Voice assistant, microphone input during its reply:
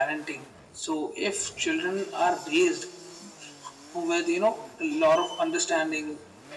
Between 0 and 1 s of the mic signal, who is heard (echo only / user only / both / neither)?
echo only